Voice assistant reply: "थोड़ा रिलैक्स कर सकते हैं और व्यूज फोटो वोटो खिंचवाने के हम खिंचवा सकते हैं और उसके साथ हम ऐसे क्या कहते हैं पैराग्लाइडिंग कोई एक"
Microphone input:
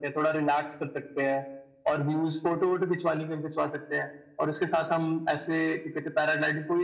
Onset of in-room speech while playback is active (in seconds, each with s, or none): none